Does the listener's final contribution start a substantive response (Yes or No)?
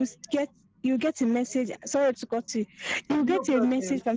No